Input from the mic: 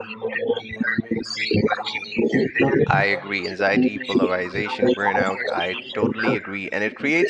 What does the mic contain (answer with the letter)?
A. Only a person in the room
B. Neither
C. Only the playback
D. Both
D